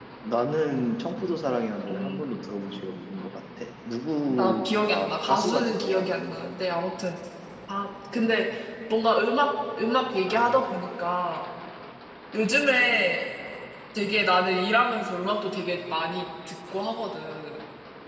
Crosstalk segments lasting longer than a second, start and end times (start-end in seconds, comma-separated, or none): 4.3-6.0